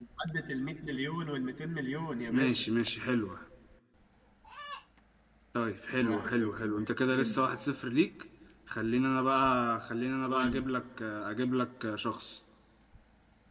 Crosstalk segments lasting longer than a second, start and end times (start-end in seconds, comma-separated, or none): 6.0-7.4